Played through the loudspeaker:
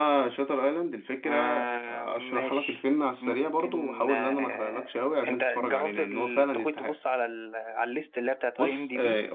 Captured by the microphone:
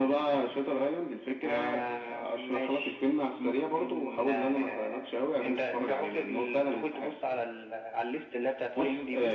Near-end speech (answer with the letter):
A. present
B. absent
B